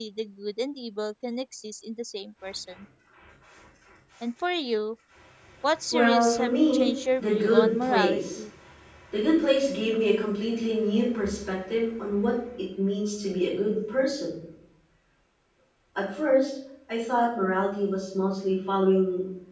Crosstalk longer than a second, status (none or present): present